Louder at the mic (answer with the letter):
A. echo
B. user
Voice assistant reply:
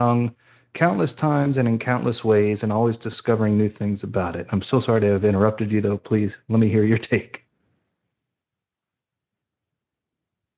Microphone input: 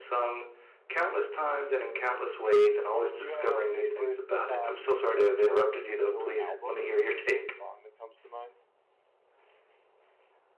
A